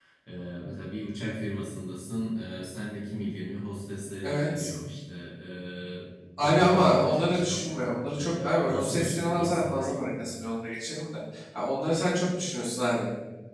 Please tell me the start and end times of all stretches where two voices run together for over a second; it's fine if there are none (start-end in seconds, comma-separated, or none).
6.4-7.7, 8.2-9.8